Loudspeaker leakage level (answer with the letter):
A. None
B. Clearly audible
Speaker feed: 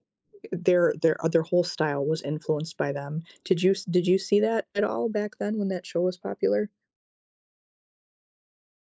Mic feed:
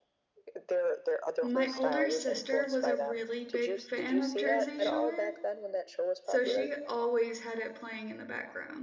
B